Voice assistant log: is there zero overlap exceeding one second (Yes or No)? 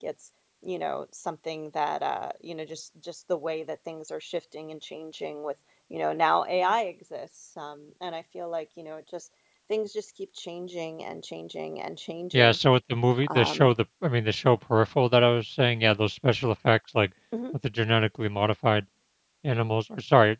Yes